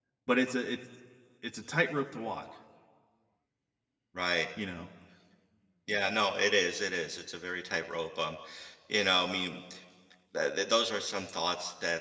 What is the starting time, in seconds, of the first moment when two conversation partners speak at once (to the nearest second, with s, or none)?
none